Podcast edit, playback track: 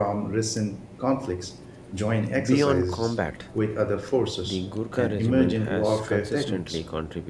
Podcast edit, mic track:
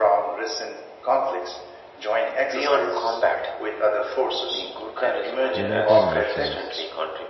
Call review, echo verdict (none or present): present